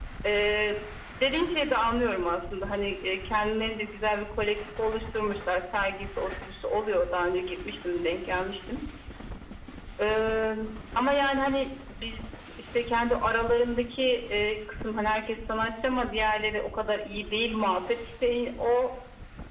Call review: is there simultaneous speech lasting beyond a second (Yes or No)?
No